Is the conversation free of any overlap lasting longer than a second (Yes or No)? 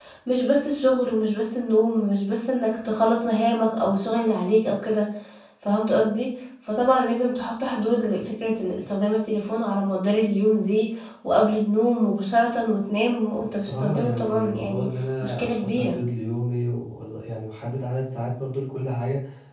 No